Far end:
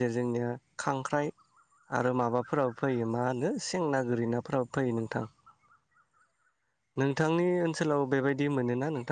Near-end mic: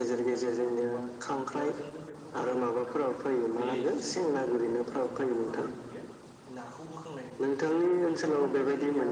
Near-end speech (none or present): present